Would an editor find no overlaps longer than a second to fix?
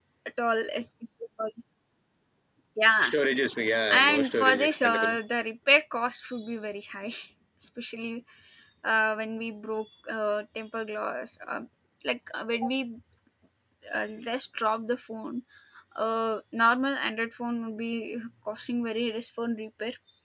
No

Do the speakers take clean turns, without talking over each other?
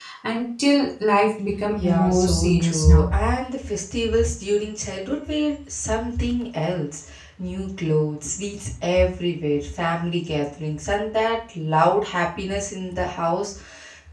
No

